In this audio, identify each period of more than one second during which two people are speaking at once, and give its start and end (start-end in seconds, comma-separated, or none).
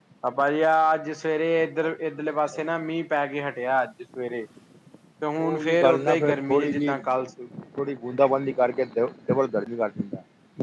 5.4-7.0